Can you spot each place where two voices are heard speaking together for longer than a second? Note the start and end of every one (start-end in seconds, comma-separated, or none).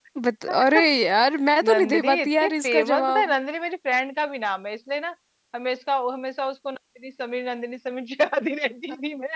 1.7-3.4